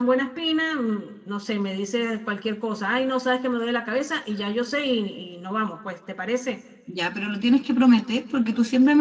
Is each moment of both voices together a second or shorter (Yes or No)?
Yes